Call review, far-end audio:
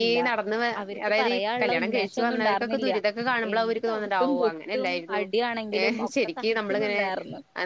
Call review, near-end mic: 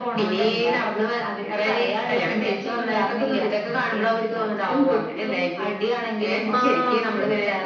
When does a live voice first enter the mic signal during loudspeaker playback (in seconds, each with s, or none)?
6.5 s